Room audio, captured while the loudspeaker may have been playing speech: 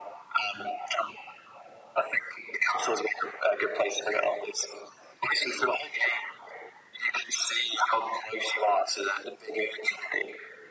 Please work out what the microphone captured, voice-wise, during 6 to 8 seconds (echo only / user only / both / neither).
echo only